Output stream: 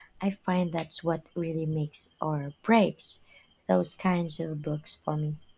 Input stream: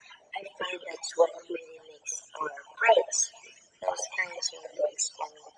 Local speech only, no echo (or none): none